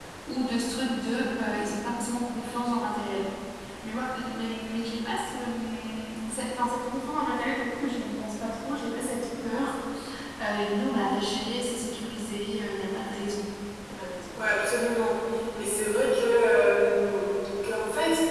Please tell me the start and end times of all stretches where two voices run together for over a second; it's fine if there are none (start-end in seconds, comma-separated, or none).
none